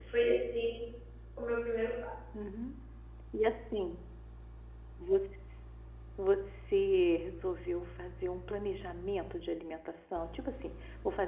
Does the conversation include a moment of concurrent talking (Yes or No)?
No